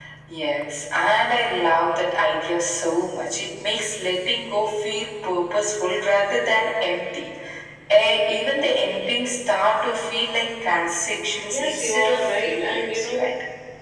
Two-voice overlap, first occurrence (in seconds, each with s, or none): 11.5 s